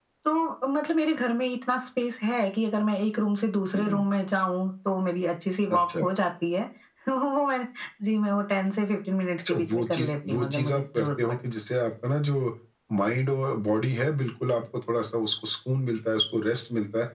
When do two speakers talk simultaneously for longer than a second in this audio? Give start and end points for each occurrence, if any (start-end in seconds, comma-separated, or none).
9.4-11.4